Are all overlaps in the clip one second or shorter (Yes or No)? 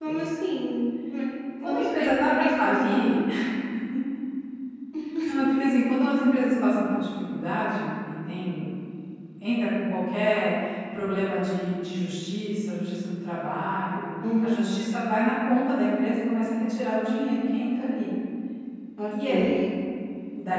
No